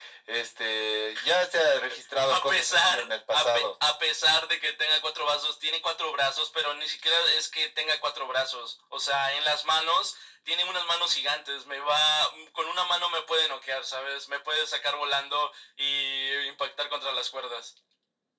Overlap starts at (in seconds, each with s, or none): 2.3 s